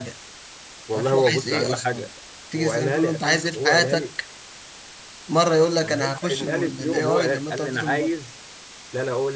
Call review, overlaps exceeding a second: present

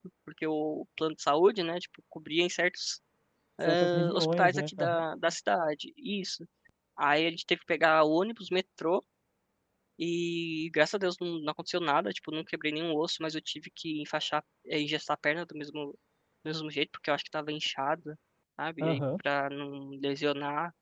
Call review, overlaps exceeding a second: present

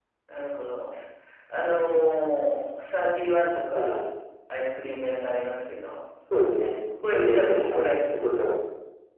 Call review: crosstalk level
present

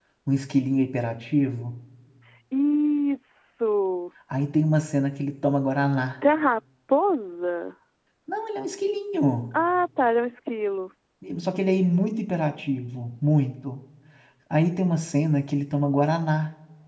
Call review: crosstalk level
none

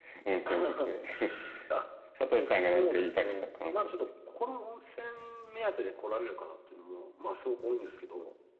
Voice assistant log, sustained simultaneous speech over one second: present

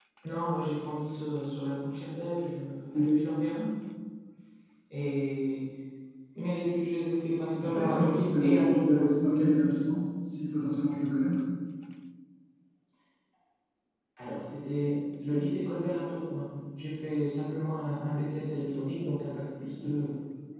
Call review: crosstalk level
present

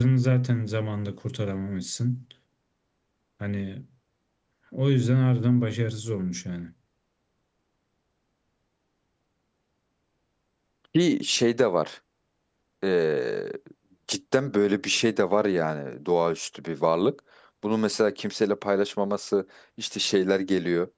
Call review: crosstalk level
none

